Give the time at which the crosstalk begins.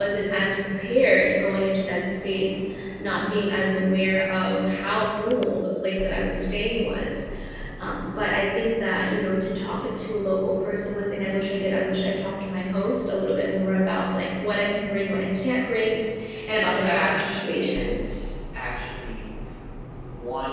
17 s

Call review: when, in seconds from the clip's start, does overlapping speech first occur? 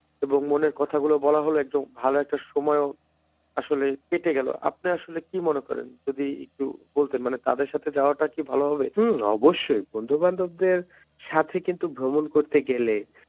none

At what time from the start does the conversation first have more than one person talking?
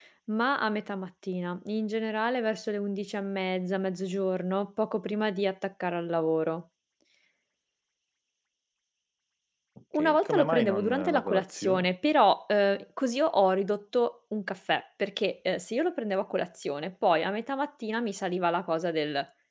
10 s

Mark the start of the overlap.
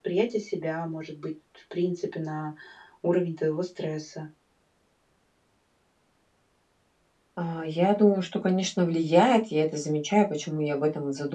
none

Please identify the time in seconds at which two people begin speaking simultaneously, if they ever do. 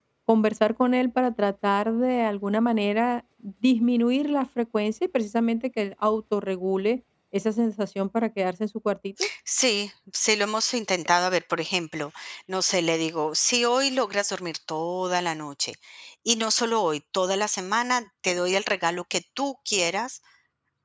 none

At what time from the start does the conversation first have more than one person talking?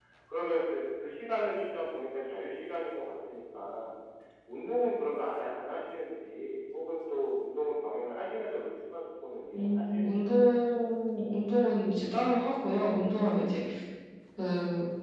10 s

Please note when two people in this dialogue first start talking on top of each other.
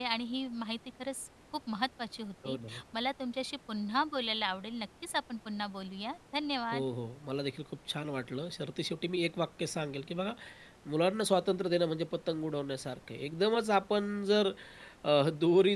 none

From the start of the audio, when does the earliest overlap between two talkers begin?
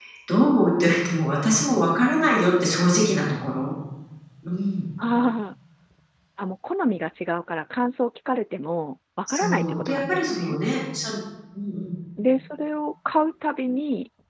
9 s

